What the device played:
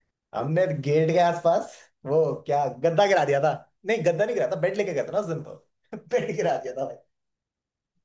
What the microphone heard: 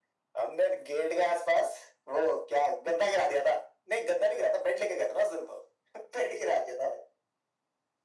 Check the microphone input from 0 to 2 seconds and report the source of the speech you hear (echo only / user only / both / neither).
echo only